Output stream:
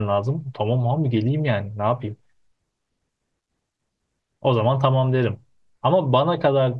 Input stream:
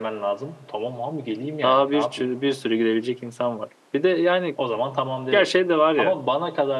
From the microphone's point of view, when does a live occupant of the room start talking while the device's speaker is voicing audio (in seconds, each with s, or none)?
1.6 s